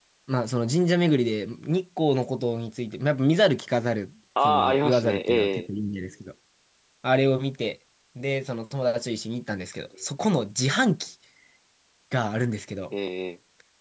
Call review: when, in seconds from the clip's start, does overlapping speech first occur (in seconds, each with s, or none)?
4.4 s